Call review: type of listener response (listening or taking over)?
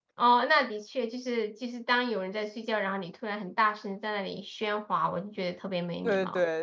taking over